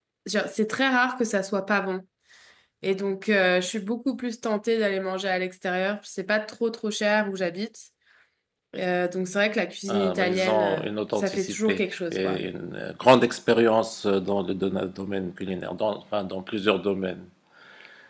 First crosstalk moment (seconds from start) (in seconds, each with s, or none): 9.9 s